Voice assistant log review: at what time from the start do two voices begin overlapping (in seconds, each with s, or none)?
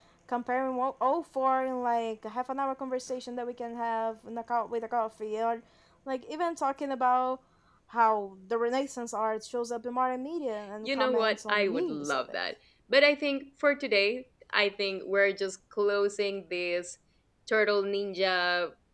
10.8 s